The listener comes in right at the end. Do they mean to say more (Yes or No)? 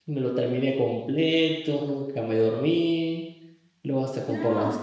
No